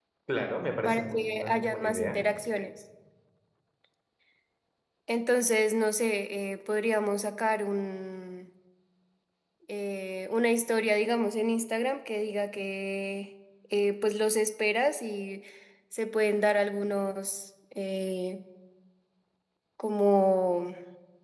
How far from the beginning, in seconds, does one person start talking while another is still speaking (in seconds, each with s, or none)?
0.8 s